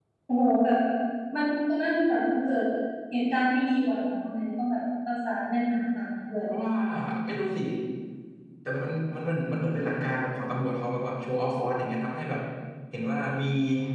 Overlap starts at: none

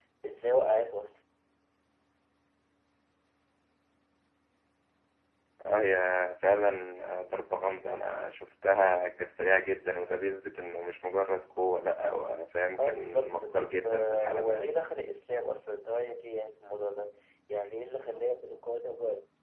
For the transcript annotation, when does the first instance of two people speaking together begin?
12.8 s

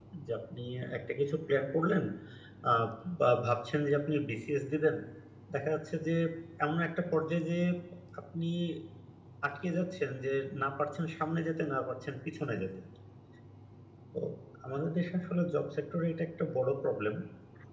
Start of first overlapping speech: none

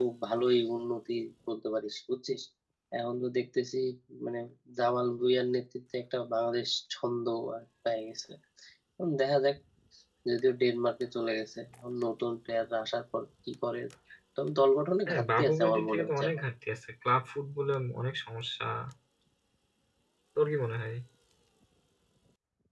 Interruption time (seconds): 15.1 s

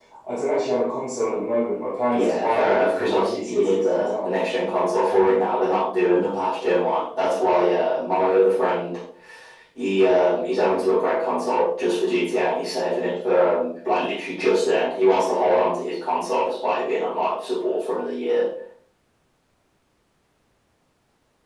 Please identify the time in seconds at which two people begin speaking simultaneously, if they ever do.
2.1 s

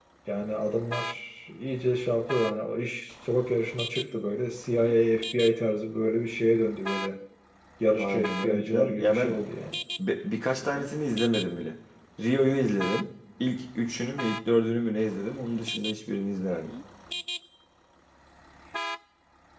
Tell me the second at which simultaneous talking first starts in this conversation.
8.0 s

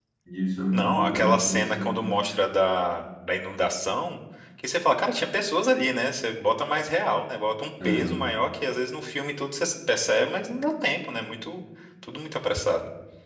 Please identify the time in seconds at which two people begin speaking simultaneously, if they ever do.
0.7 s

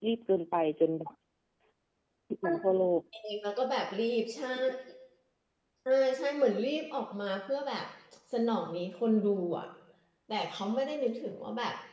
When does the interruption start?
none

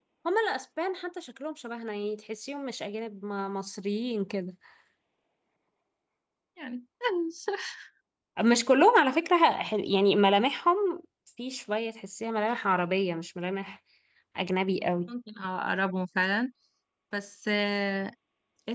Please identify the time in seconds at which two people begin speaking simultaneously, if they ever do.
none

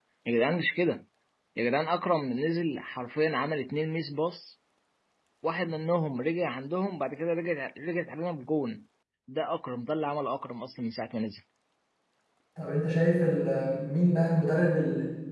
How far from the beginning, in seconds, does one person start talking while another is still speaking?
none

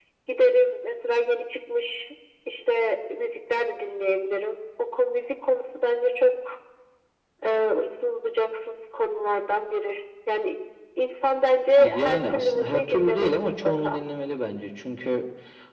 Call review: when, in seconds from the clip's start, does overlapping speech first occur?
11.8 s

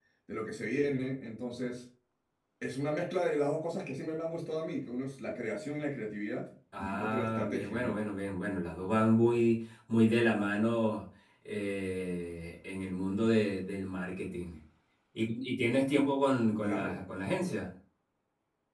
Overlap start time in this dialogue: 6.8 s

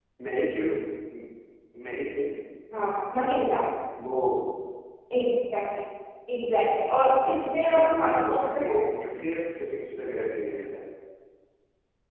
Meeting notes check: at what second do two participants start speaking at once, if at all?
7.0 s

